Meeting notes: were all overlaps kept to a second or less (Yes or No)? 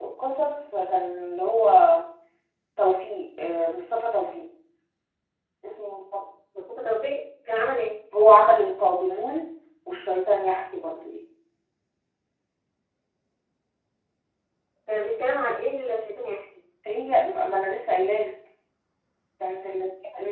Yes